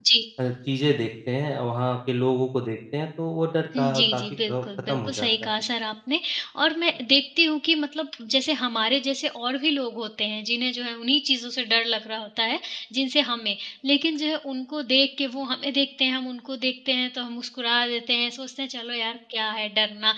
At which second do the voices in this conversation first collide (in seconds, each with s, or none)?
3.7 s